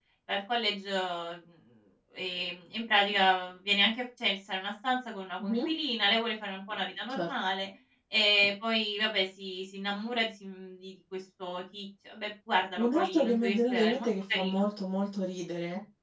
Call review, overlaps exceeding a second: present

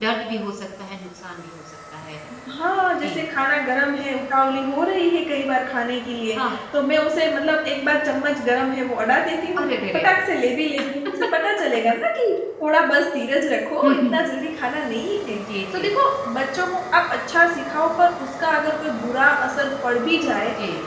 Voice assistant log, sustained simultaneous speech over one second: none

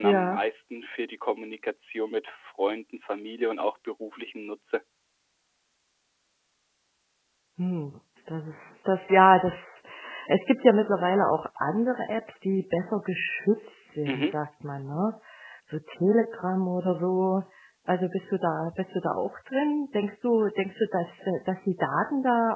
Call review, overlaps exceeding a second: none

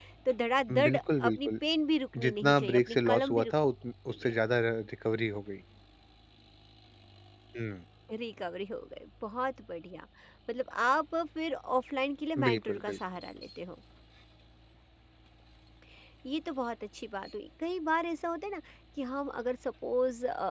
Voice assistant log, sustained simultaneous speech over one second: present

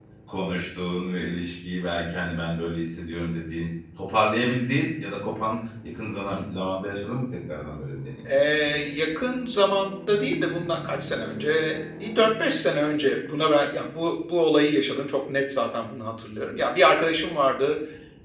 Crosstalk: none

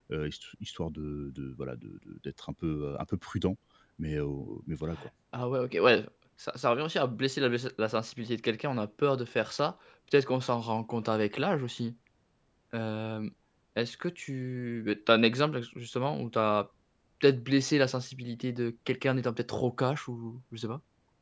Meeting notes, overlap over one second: none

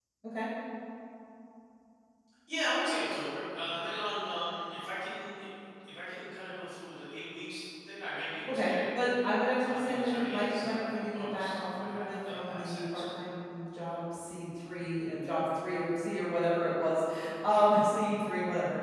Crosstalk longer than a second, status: present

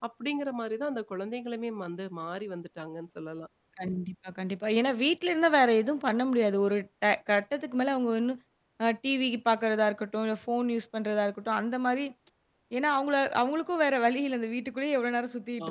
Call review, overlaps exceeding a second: none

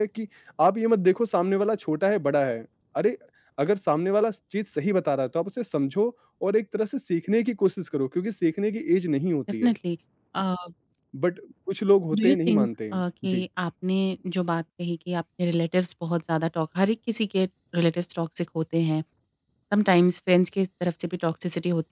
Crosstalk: present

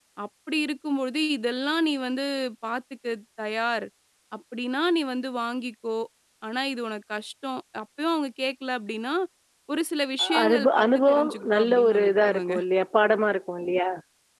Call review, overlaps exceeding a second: present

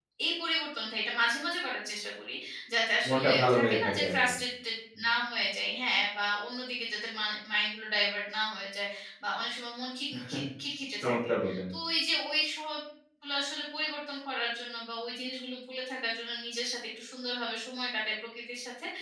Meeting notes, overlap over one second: present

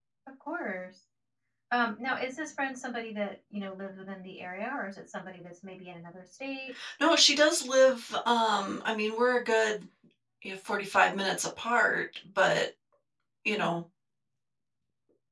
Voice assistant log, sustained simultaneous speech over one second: none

